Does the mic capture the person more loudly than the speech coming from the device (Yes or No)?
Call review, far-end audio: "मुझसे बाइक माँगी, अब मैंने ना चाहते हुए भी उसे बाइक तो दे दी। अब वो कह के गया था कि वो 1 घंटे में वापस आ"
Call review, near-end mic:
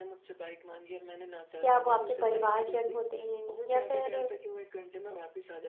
Yes